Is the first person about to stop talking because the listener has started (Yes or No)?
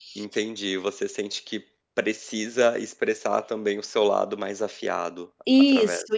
Yes